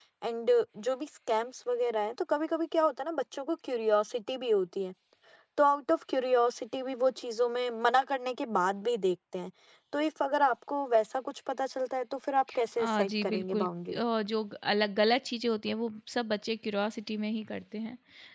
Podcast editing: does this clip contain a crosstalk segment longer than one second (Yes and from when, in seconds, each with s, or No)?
Yes, from 12.8 s